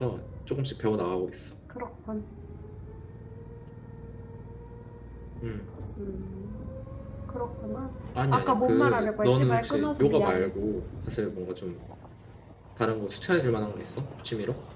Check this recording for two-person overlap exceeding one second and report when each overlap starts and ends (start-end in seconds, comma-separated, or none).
8.3-10.5